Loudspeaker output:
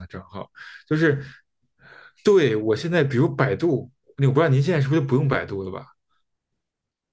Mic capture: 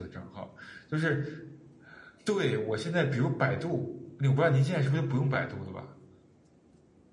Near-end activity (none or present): none